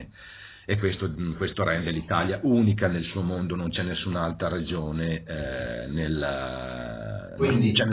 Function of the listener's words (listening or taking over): listening